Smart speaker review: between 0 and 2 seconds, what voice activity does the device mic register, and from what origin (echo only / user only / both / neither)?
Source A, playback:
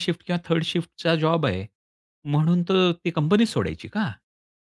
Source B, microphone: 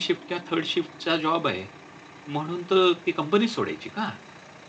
echo only